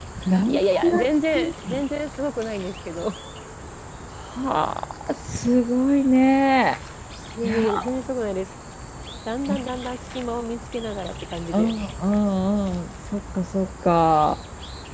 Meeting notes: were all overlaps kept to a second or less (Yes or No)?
No